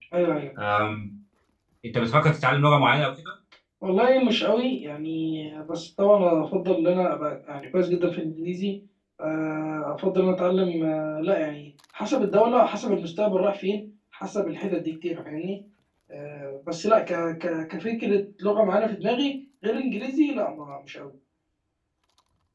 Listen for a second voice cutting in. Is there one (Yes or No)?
No